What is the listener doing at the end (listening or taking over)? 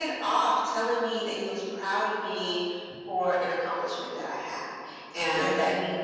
listening